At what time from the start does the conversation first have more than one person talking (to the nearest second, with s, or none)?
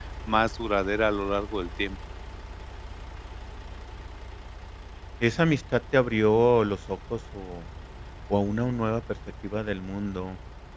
none